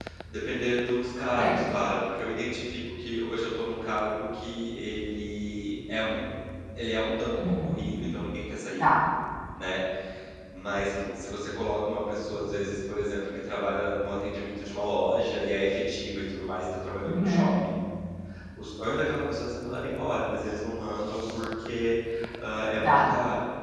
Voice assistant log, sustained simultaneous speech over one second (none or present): none